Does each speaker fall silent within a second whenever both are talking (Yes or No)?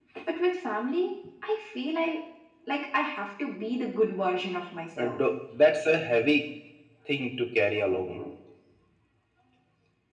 Yes